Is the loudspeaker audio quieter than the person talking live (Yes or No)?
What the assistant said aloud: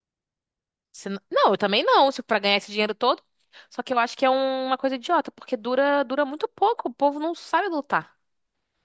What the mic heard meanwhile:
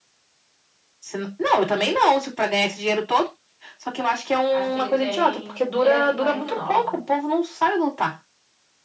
No